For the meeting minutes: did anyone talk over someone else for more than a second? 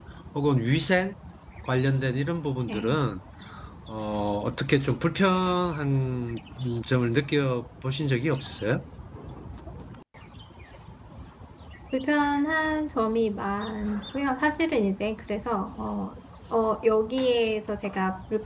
No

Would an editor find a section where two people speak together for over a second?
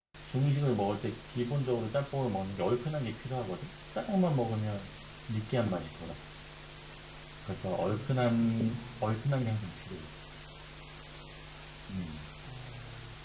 Yes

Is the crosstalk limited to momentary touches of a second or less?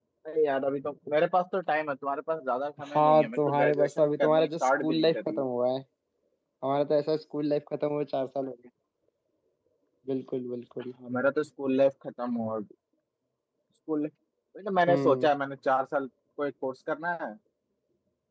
No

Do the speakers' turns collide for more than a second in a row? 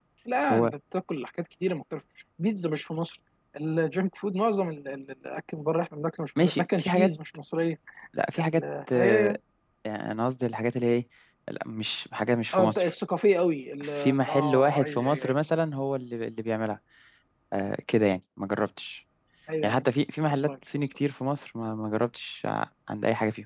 Yes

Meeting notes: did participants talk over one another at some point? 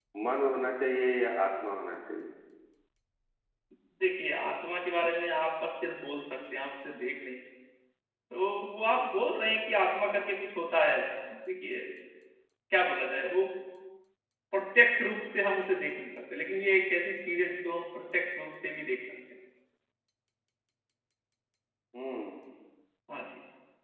No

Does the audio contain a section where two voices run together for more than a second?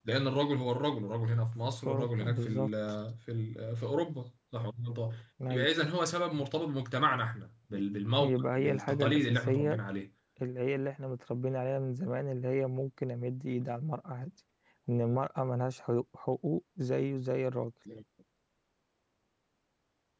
Yes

